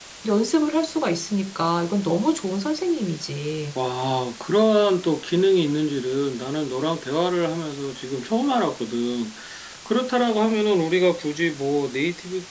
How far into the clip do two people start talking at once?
none

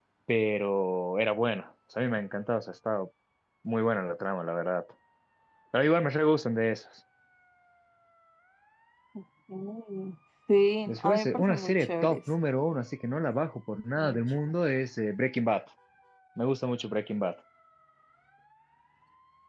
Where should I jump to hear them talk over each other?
10.9 s

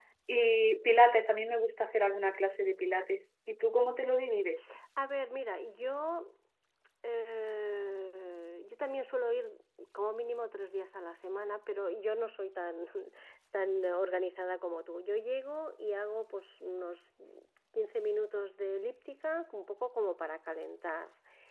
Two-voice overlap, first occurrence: none

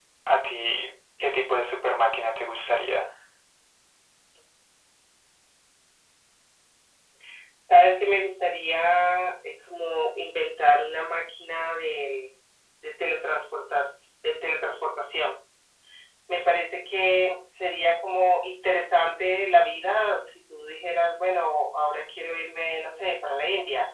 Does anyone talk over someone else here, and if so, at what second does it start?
none

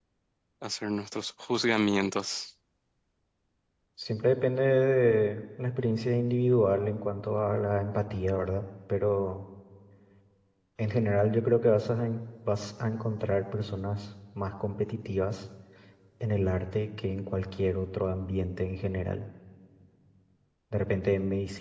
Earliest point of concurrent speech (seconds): none

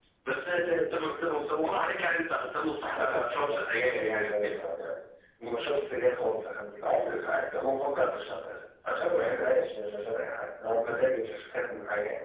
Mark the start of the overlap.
3.0 s

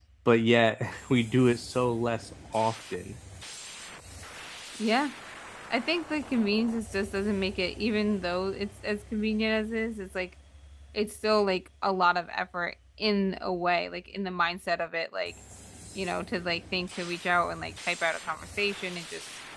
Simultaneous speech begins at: none

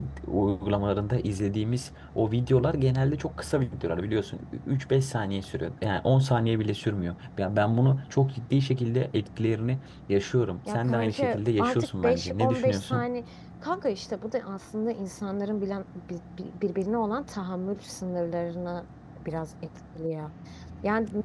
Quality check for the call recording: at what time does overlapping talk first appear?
10.7 s

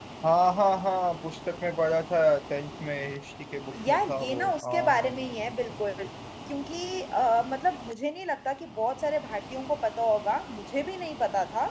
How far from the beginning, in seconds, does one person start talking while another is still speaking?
3.7 s

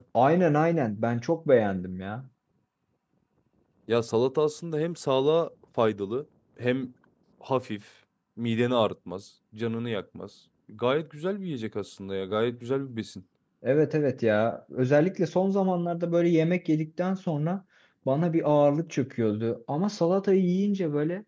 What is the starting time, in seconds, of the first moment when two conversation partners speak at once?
none

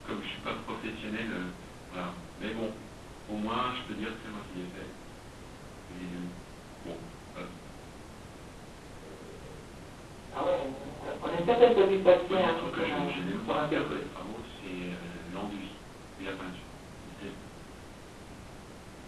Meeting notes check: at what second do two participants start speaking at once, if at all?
12.3 s

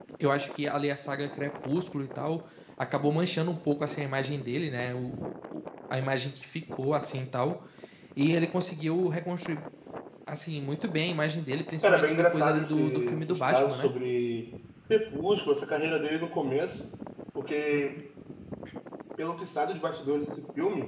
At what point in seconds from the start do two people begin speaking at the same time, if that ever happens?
11.8 s

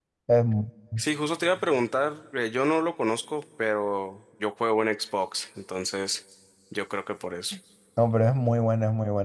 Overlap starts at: none

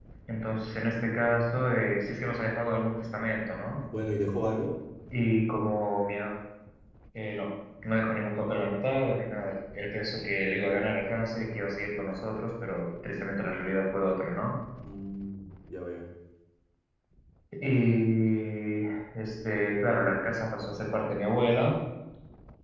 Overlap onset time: none

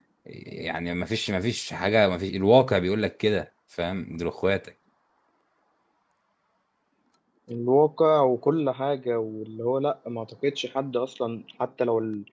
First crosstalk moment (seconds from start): none

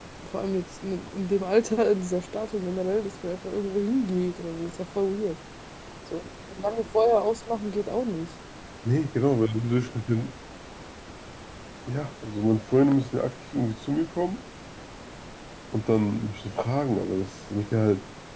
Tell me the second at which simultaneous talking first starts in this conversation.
none

